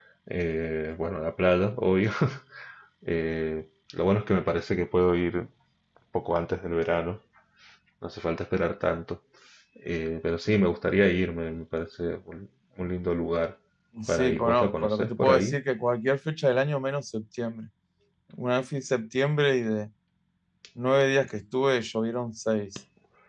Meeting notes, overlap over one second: present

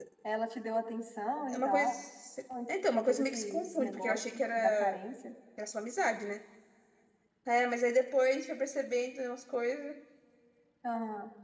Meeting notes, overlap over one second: present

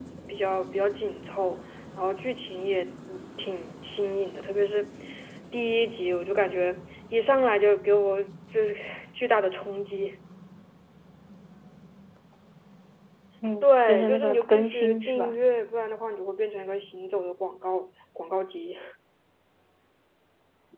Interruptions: present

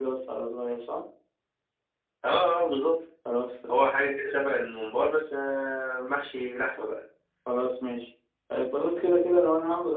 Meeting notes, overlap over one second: none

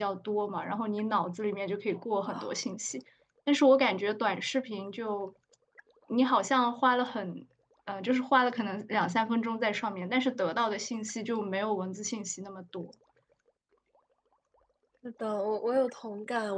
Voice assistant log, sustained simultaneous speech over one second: none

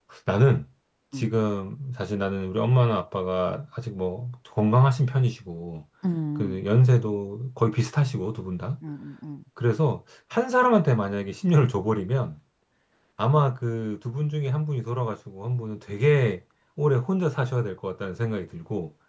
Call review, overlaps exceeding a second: none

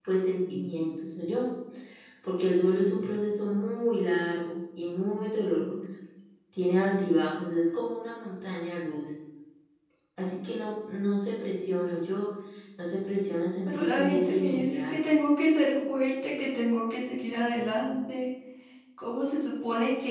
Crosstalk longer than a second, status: present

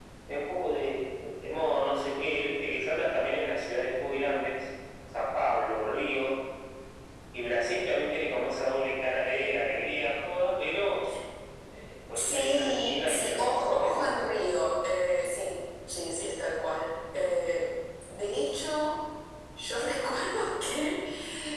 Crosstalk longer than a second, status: present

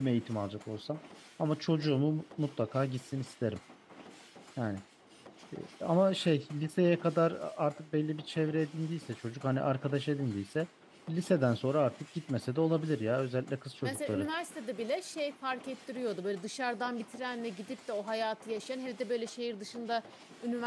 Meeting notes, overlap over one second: none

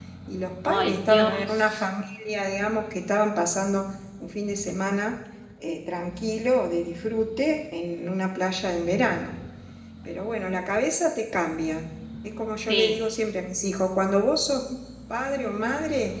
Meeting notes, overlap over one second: present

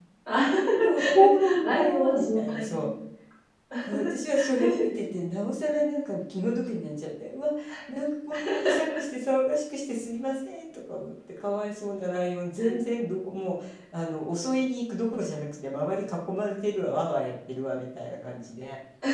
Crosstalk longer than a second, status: present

